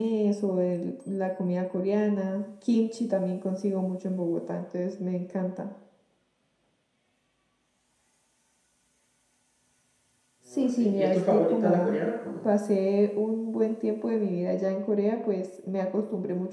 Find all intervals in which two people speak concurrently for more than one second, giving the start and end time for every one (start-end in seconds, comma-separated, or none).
10.5-12.0